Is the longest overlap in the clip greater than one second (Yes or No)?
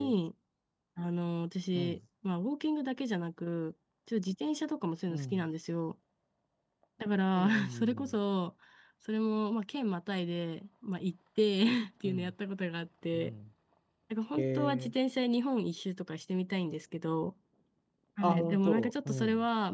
Yes